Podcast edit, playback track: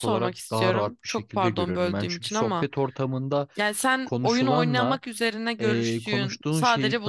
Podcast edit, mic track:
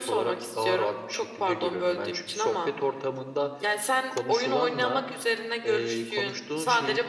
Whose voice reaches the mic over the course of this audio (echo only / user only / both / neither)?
echo only